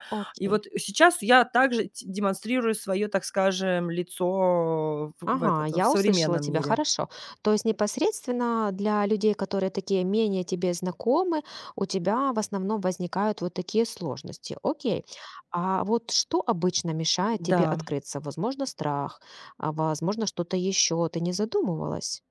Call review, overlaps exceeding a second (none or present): present